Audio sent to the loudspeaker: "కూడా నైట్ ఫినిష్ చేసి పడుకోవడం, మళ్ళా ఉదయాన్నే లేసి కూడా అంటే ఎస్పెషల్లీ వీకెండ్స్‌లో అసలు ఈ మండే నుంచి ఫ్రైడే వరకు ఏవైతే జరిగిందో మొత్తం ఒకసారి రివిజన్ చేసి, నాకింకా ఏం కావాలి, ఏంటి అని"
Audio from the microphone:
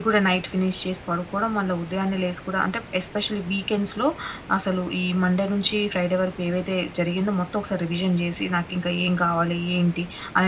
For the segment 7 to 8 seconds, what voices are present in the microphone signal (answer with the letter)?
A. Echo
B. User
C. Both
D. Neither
A